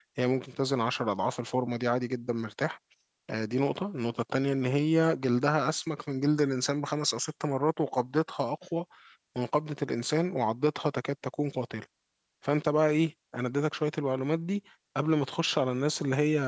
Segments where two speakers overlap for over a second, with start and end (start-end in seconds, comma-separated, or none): none